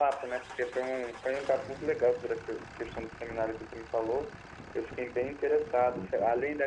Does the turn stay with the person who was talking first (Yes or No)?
Yes